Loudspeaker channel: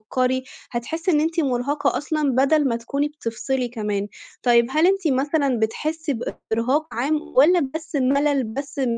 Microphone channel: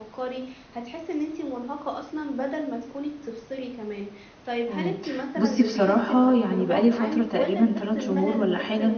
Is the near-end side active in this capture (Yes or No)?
Yes